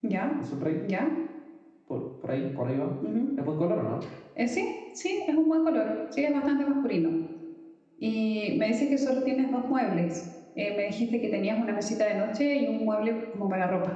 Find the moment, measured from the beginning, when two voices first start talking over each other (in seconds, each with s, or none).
none